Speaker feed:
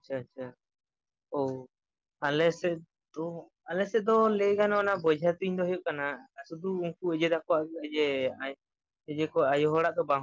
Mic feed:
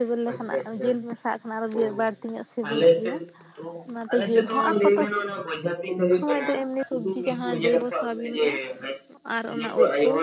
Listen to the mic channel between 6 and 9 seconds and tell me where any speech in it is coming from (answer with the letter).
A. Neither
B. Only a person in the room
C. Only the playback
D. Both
D